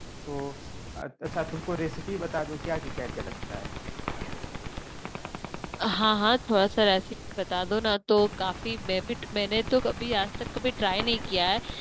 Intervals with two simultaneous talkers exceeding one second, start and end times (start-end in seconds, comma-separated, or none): none